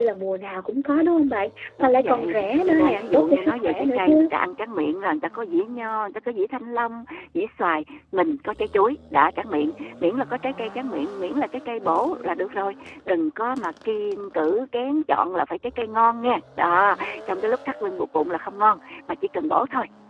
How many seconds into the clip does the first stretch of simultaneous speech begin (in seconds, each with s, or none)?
1.8 s